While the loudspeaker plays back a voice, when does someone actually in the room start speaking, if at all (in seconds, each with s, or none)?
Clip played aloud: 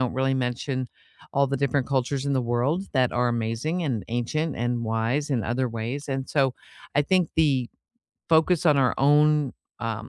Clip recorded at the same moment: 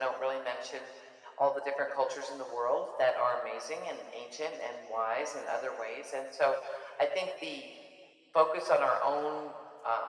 none